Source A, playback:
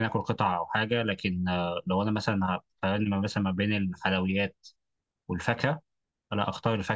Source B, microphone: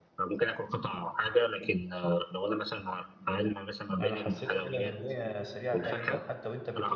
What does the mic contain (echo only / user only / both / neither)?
both